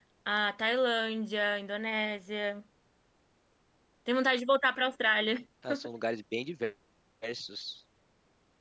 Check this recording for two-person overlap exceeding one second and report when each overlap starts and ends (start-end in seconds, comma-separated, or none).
none